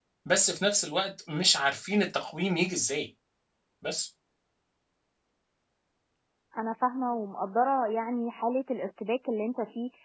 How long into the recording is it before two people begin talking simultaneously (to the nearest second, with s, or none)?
none